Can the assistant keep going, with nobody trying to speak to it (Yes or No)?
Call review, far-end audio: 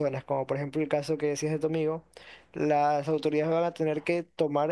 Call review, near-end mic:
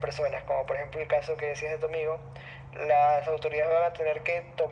Yes